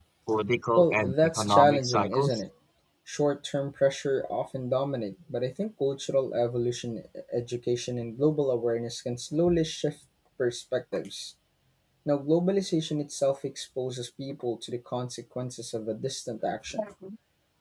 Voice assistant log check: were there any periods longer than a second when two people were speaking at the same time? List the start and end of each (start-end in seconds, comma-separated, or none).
0.8-2.4